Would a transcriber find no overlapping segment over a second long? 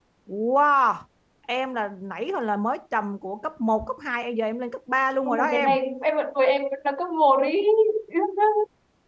Yes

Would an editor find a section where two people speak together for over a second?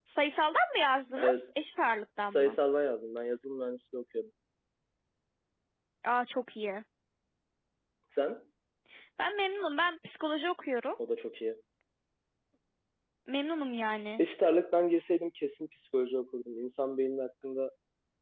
No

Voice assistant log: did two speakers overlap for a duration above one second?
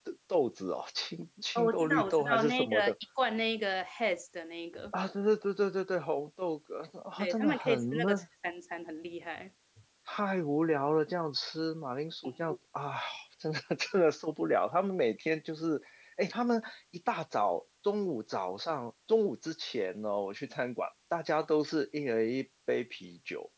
Yes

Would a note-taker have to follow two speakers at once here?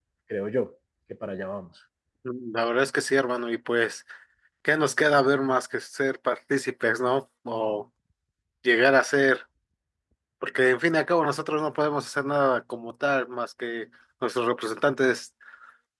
No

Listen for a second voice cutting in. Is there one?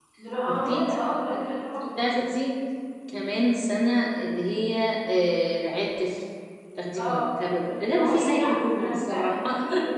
Yes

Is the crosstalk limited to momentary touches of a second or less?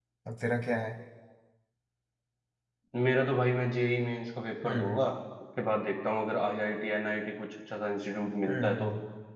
Yes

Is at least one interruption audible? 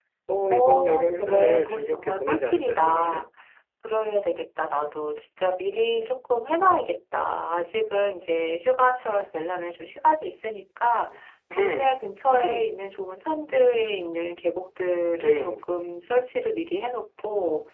Yes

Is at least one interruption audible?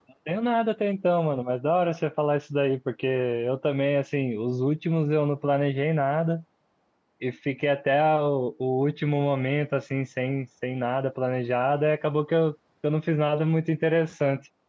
No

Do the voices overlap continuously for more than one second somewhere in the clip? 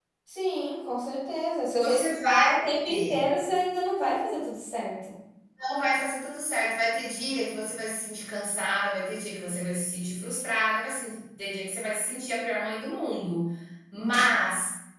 Yes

